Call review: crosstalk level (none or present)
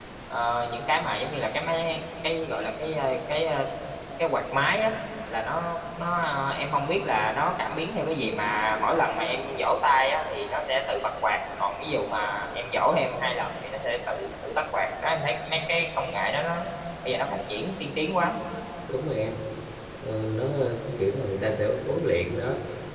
none